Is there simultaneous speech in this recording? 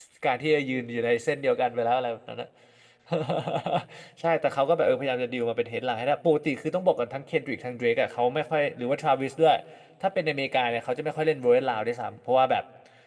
No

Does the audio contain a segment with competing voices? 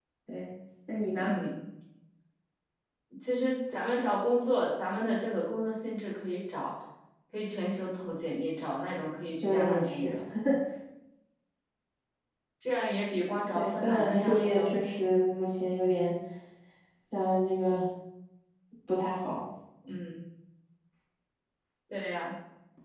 Yes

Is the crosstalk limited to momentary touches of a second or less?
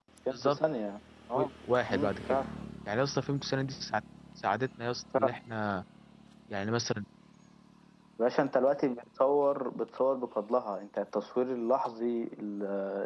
Yes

